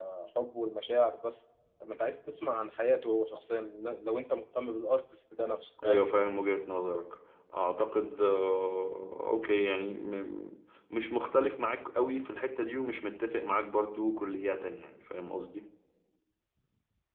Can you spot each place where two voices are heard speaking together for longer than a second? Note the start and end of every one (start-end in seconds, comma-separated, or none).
none